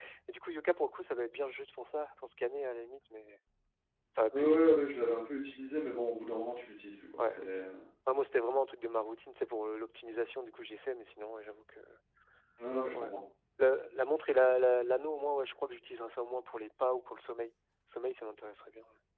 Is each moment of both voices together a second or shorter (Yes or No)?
Yes